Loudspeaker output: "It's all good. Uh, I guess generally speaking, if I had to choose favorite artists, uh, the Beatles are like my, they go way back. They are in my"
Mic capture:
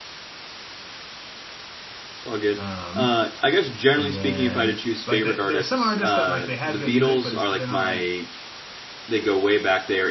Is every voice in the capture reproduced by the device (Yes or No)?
No